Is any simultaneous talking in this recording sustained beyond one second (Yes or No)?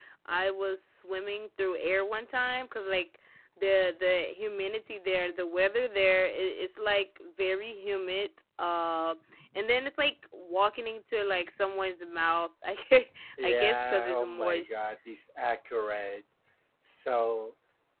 Yes